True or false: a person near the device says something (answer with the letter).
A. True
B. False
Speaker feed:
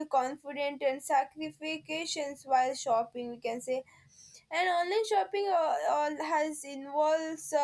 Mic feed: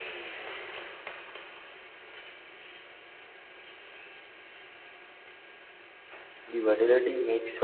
A